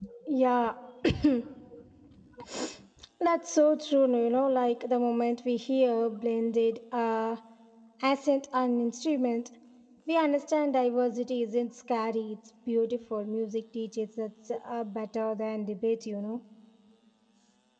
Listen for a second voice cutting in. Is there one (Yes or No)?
No